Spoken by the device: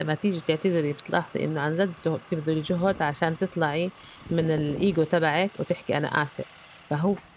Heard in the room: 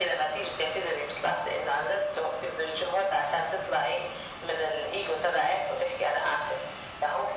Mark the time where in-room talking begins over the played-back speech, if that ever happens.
none

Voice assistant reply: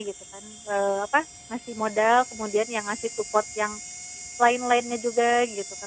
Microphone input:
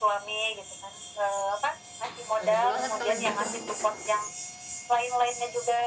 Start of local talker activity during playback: 2.4 s

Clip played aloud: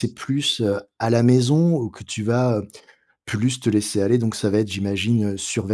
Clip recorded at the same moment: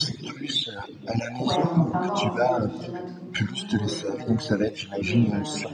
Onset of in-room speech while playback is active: 1.4 s

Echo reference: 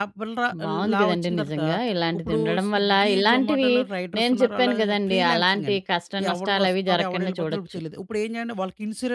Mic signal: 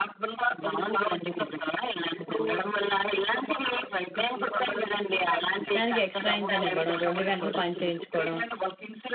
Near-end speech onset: 5.8 s

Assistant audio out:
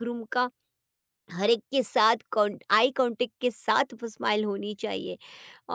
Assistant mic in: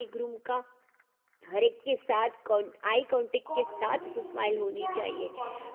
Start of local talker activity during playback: 3.5 s

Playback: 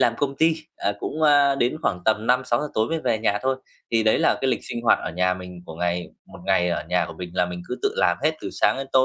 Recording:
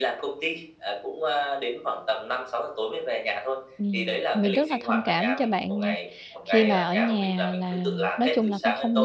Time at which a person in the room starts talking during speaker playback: 3.8 s

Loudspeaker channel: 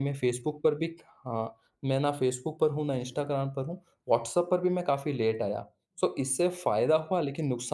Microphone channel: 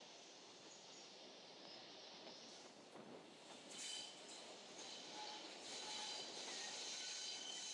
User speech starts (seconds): none

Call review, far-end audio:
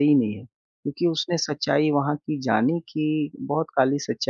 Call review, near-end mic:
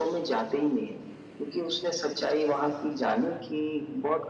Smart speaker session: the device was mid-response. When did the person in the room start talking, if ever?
none

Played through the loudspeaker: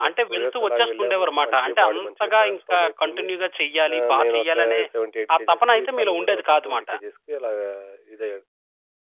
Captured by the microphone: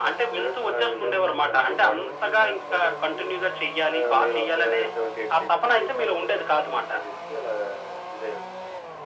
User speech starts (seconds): none

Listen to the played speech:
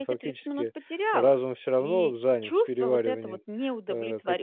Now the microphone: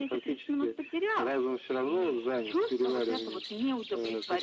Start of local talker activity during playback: none

